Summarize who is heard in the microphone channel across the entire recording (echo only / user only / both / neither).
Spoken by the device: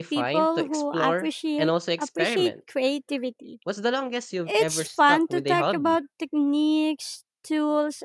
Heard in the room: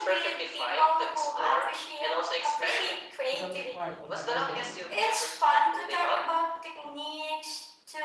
both